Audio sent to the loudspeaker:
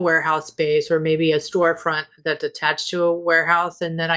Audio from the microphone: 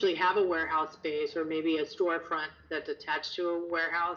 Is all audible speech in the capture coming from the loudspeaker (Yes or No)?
Yes